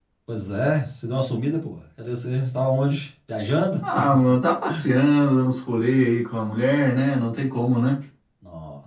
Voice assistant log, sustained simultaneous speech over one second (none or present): none